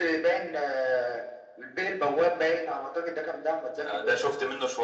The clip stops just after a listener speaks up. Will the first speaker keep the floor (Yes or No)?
No